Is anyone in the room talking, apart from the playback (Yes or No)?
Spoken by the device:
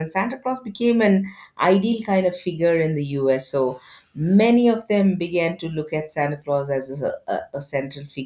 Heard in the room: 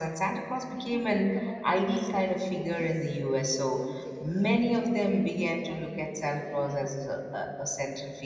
Yes